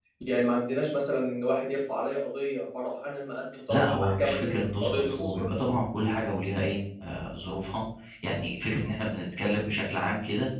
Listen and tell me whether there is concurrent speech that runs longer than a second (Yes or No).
Yes